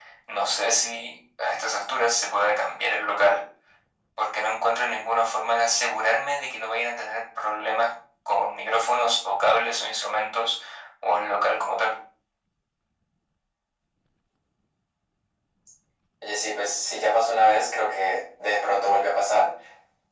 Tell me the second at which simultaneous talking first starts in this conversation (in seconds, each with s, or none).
none